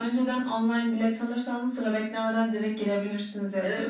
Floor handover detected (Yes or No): Yes